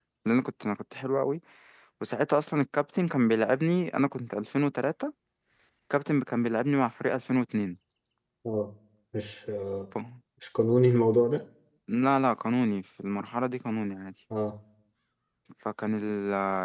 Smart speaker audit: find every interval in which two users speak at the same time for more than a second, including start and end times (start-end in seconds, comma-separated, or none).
none